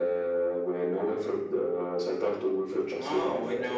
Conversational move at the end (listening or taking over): taking over